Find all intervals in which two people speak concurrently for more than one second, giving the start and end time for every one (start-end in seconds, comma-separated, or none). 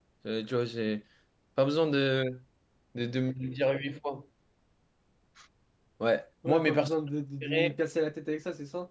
none